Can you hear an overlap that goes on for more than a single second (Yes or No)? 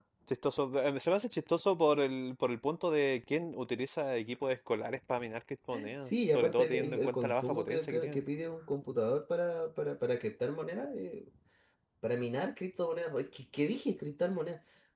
Yes